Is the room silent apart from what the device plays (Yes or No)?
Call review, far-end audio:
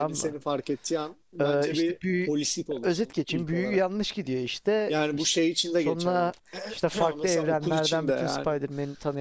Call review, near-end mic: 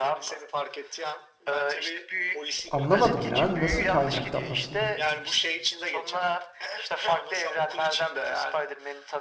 No